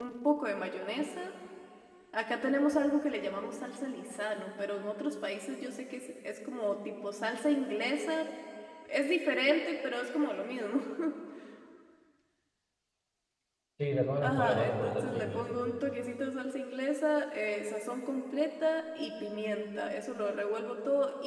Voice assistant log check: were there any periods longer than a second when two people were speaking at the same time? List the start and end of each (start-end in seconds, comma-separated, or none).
14.2-15.4